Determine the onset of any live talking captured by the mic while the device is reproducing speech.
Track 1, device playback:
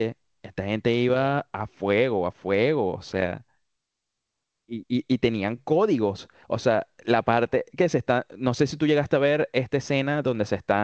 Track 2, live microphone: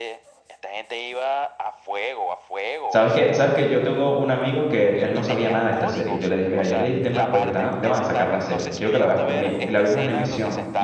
2.9 s

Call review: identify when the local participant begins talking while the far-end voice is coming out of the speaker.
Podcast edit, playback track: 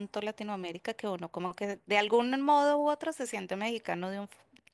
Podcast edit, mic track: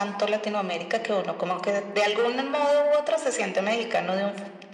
none

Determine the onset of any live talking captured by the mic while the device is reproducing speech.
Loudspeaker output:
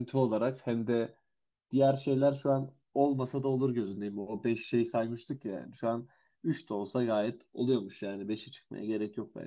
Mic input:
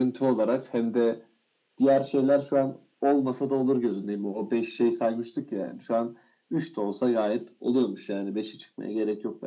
none

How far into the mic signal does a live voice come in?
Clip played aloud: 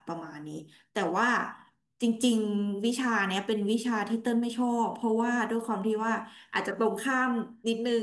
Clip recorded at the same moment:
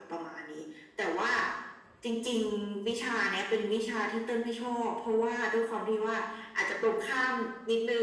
none

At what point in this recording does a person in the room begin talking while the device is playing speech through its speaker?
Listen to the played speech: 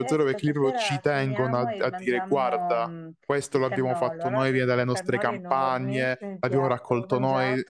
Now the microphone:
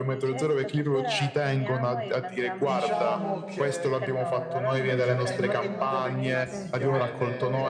2.5 s

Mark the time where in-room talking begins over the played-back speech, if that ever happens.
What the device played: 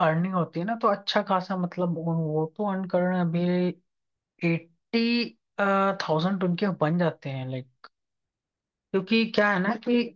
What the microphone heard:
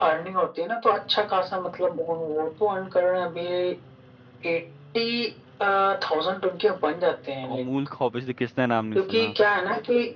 7.5 s

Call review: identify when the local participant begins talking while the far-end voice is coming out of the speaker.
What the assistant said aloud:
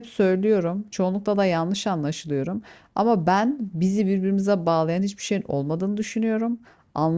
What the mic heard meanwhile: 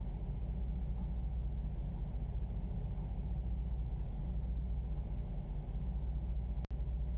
none

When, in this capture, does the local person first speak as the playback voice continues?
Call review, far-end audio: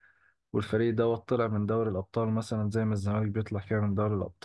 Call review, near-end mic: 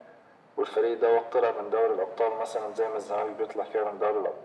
none

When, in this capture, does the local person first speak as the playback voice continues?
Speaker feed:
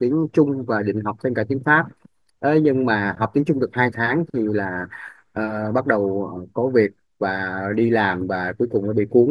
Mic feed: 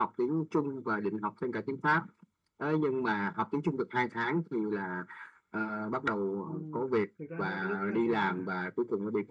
6.4 s

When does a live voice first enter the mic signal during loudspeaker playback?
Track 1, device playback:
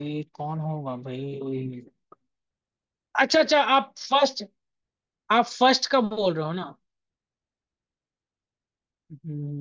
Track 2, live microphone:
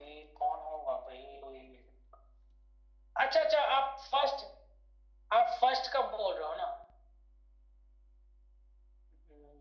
none

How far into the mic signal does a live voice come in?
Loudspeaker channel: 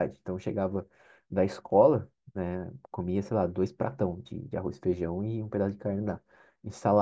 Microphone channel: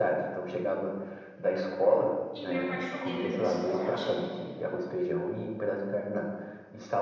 2.3 s

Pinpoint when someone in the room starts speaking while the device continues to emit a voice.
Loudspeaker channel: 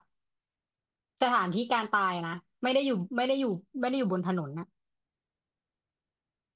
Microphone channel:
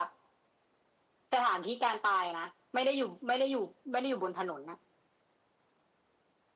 none

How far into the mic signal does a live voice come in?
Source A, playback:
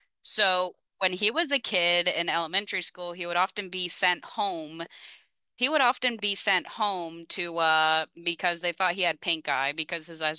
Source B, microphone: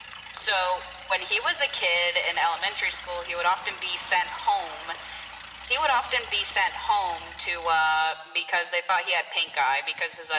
none

